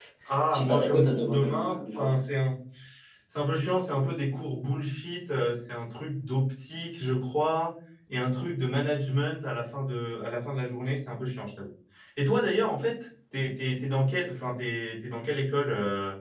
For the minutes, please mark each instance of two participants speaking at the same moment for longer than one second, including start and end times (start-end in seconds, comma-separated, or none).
0.5-2.1